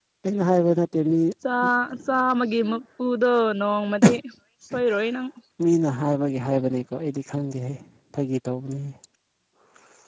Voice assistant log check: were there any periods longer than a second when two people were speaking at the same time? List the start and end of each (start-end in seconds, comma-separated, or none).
none